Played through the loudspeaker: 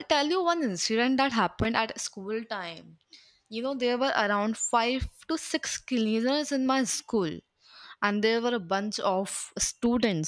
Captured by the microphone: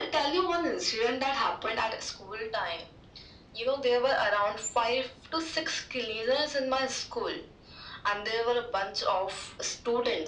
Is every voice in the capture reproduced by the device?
Yes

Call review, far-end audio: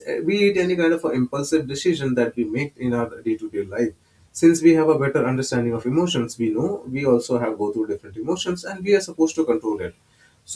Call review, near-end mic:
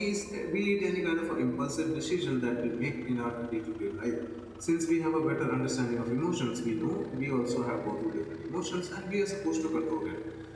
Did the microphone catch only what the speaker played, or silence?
Yes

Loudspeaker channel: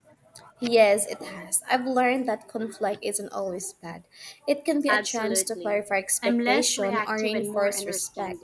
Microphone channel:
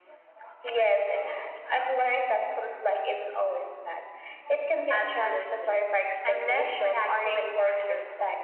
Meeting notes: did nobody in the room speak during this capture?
Yes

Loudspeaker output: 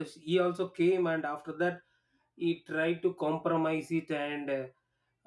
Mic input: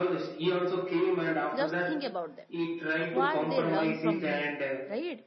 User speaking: Yes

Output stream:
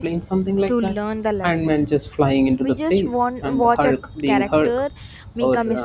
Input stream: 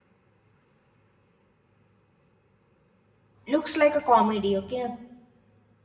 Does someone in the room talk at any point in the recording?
Yes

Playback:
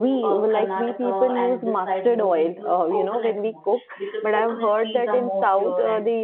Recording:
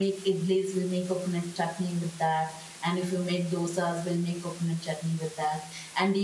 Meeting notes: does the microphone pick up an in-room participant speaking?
Yes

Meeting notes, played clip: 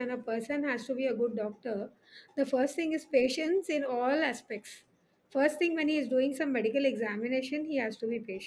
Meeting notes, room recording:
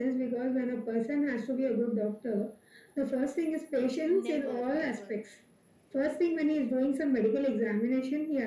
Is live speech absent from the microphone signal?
No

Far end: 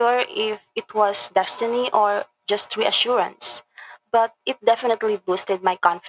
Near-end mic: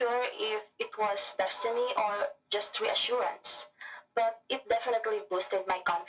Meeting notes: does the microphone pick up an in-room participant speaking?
No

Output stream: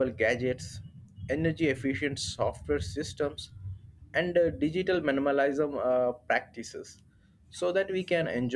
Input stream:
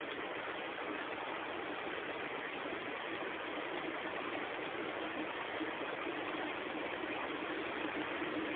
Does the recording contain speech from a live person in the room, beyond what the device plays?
No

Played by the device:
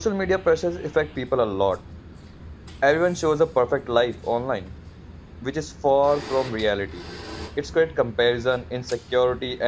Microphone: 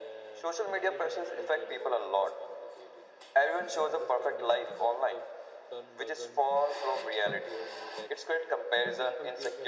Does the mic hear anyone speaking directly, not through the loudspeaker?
Yes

